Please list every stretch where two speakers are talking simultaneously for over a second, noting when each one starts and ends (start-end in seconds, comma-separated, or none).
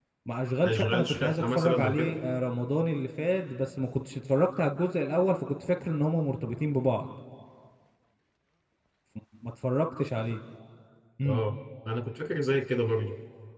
0.6-2.2